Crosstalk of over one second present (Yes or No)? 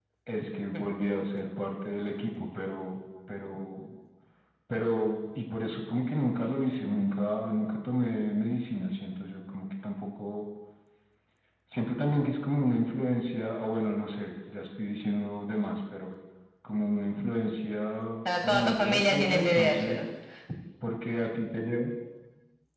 Yes